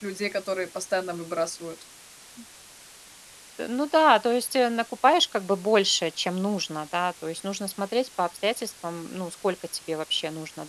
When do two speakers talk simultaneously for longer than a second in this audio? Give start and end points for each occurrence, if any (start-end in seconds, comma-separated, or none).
none